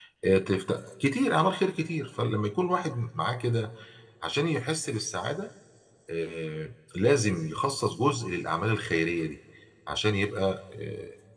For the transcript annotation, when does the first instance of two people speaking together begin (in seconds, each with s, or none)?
none